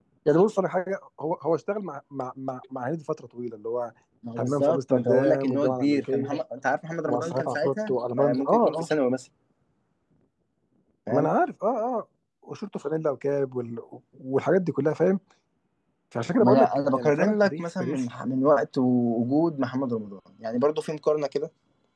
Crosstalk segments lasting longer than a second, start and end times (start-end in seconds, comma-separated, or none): 4.4-6.3, 7.1-8.9, 16.4-18.0